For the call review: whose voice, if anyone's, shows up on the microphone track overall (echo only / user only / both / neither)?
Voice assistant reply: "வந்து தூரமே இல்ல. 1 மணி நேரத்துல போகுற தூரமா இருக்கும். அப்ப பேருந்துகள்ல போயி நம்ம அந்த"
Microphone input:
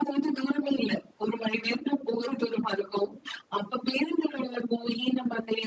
echo only